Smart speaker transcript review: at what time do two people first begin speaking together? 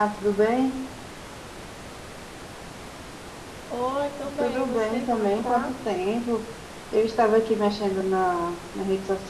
4.4 s

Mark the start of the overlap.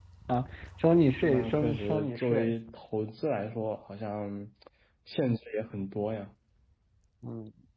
1.2 s

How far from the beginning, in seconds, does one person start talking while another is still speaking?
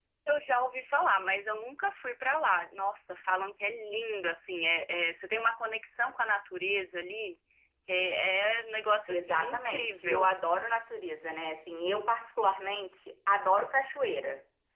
9.1 s

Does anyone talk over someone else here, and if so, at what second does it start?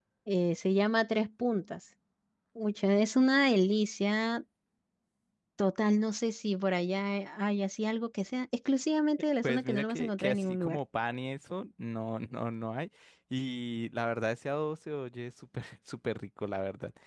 9.4 s

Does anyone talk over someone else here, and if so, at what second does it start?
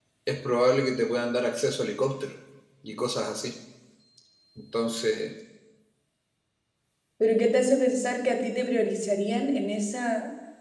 none

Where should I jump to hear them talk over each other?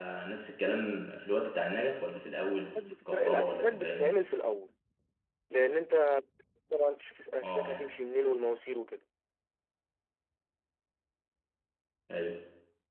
2.8 s

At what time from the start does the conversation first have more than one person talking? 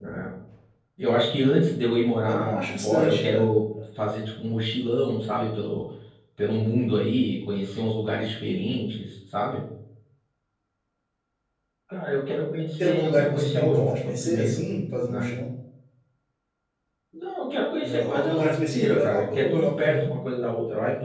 2.3 s

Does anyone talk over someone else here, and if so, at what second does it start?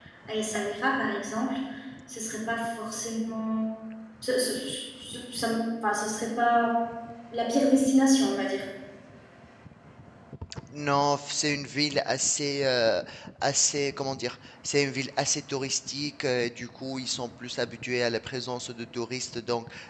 none

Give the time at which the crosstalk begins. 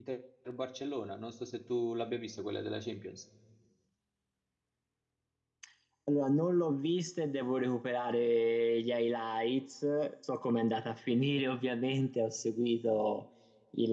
none

